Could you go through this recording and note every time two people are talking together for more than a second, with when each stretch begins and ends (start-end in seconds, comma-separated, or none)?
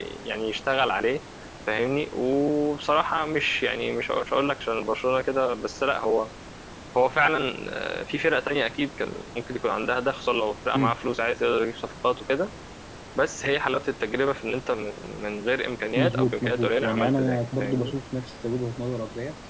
15.9-17.9